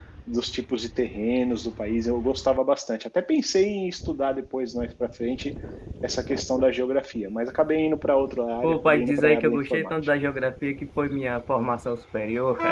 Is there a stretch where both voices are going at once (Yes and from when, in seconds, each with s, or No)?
Yes, from 8.6 s